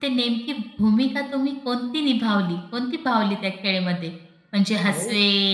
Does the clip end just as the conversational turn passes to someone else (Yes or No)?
No